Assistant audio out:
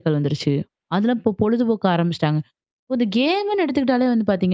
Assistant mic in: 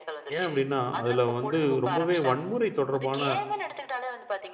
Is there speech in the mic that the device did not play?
Yes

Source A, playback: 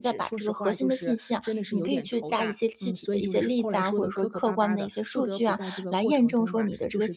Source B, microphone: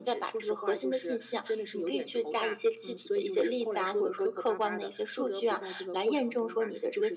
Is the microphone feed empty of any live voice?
Yes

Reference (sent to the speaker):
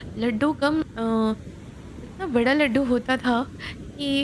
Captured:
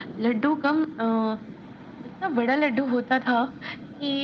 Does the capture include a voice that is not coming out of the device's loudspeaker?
No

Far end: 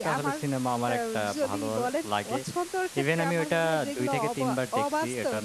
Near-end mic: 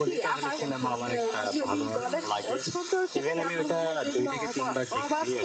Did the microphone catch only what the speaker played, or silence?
No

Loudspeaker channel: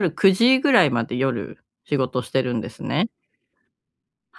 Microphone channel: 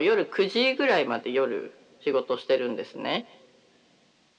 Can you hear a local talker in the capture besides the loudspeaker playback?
No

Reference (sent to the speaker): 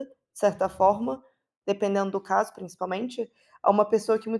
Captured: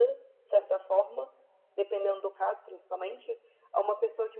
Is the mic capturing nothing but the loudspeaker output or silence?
Yes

